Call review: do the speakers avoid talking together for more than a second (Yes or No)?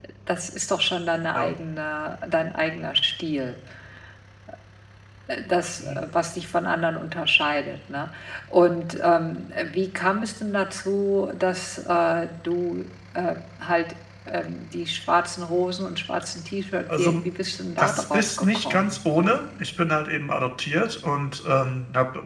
No